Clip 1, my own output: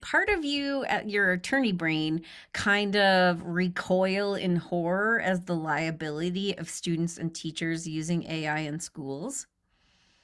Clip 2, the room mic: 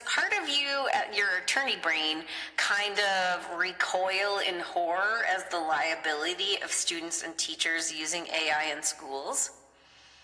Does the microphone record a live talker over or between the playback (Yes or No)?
No